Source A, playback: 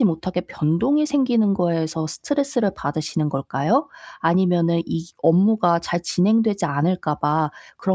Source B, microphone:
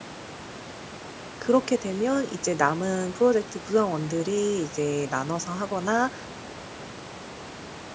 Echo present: No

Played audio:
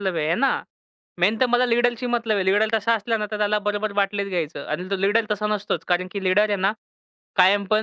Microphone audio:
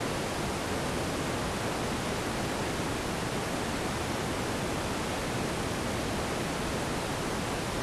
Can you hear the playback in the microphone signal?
No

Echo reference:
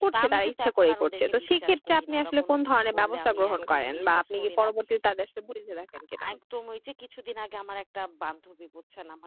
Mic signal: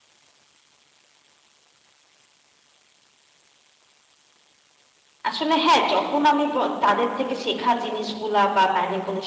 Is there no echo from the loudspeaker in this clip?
Yes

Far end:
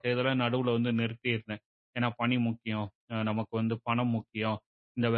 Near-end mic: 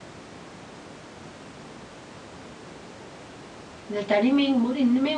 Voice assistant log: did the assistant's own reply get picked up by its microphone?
No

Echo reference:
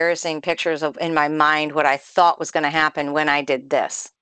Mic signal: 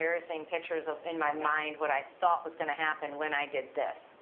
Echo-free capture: No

